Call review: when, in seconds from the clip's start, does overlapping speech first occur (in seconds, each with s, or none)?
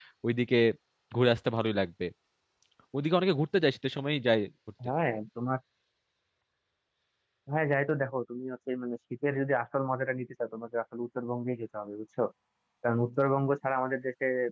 none